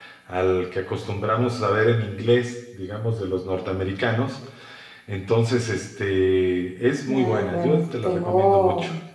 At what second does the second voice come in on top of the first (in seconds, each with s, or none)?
7.1 s